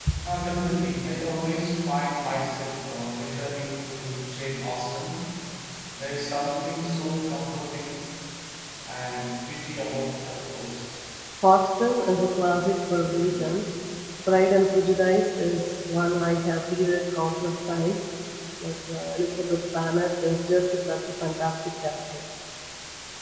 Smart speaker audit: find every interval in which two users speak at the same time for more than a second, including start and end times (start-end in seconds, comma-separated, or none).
none